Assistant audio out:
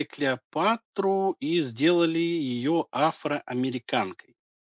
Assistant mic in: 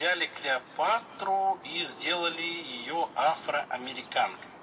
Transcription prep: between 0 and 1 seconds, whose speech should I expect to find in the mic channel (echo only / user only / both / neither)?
echo only